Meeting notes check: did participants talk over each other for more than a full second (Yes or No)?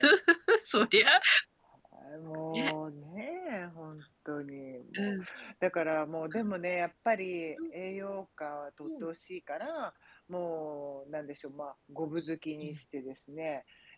No